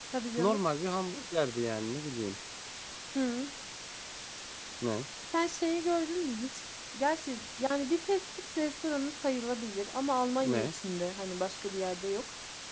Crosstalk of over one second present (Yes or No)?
No